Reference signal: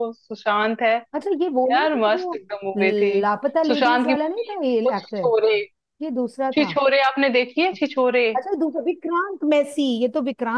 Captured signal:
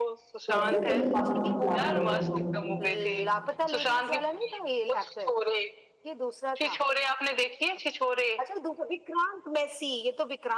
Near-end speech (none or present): present